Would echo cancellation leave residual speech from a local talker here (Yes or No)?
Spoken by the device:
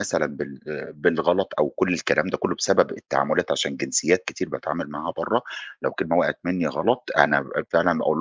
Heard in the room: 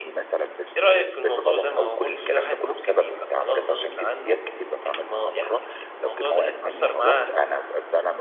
Yes